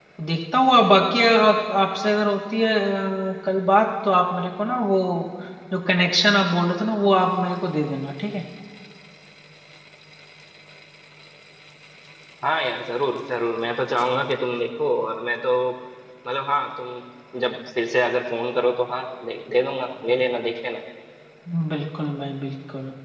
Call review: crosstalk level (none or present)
none